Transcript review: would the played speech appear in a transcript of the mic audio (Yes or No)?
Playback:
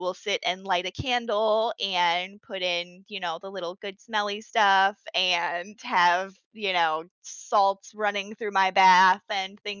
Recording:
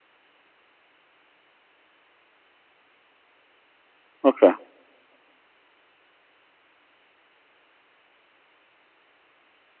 No